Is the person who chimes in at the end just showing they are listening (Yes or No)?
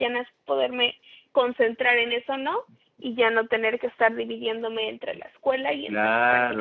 No